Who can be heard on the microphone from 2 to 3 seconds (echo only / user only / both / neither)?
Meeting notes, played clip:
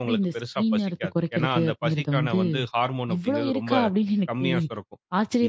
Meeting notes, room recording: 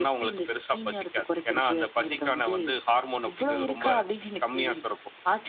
echo only